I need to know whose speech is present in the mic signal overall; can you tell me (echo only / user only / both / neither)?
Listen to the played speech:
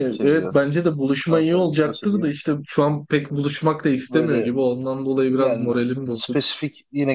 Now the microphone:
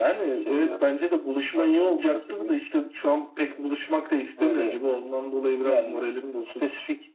echo only